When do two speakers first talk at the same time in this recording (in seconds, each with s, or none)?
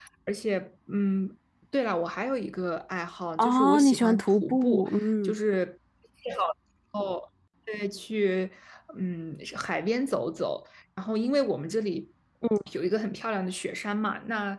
3.4 s